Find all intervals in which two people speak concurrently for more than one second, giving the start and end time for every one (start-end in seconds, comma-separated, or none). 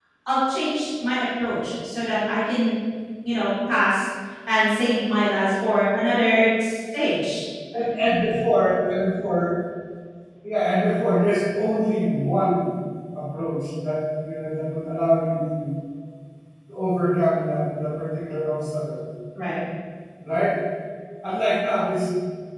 none